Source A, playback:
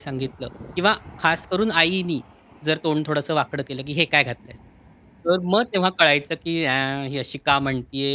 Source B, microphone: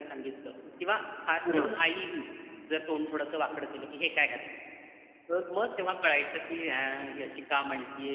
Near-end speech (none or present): present